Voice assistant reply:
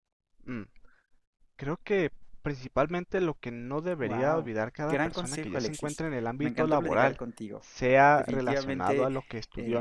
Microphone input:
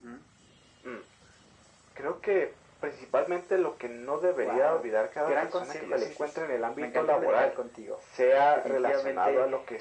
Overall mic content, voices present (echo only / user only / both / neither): echo only